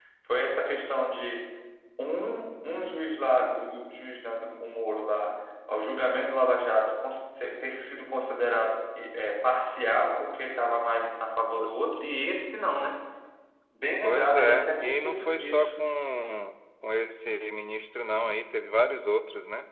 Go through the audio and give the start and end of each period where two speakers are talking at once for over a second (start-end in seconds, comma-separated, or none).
14.0-15.8